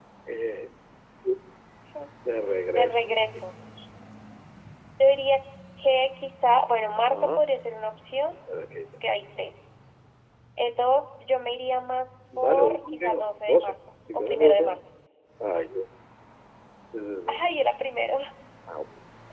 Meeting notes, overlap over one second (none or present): present